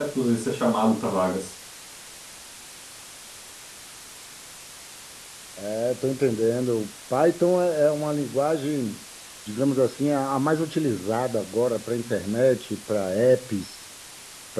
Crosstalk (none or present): none